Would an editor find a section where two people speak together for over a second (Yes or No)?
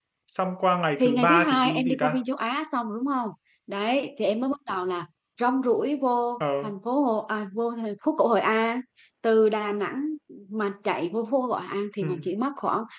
Yes